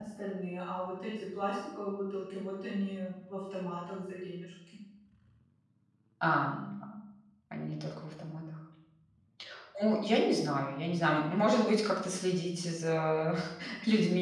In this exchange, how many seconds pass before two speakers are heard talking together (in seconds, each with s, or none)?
none